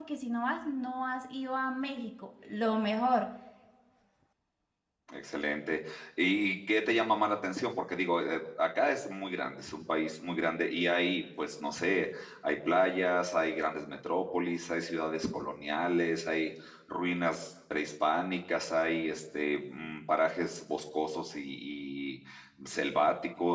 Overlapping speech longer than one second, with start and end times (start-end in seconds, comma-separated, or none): none